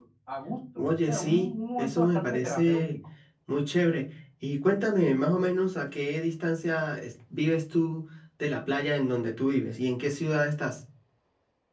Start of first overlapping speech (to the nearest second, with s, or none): 1 s